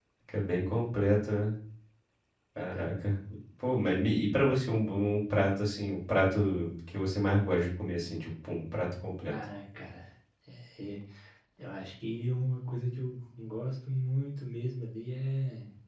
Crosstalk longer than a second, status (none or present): none